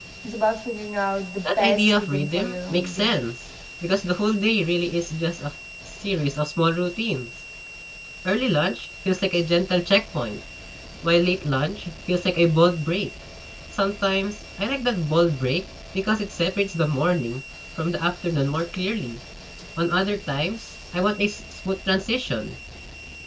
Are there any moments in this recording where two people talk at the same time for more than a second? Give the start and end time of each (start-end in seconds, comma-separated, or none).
1.4-3.2